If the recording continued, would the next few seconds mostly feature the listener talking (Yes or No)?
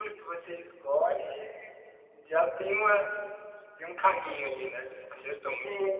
Yes